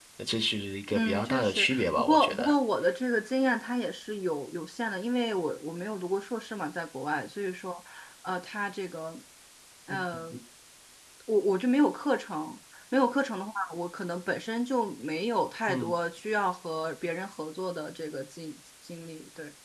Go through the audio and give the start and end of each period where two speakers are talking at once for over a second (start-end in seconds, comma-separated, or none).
0.9-2.5